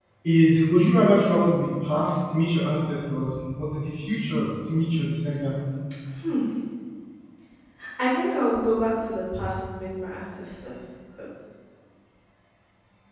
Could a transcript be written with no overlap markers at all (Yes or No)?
Yes